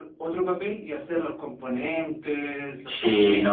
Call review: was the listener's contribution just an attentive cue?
No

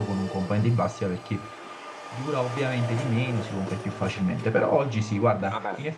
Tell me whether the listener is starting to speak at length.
No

